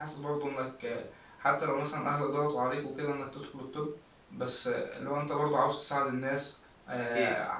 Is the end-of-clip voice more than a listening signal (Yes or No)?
No